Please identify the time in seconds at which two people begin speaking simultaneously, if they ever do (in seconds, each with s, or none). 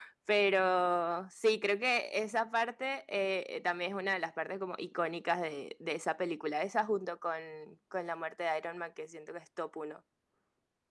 none